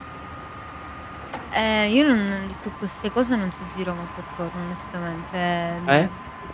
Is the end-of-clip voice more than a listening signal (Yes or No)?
No